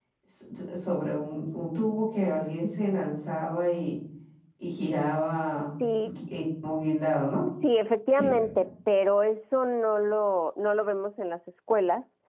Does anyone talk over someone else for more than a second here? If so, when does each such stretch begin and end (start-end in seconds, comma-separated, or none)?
none